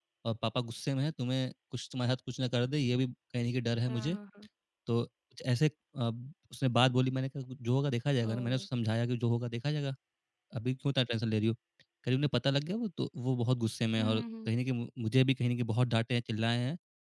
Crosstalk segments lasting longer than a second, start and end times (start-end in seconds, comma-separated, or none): none